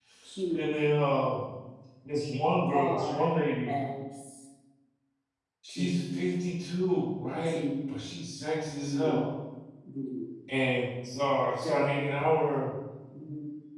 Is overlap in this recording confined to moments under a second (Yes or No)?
Yes